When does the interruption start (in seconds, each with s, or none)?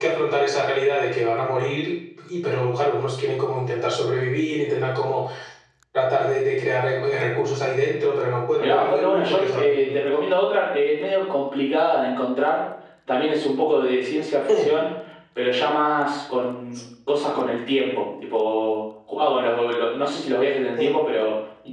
8.6 s